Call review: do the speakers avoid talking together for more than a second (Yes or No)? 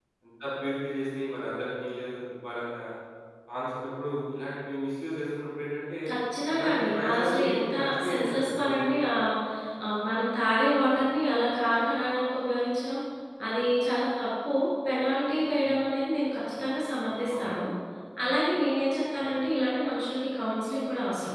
No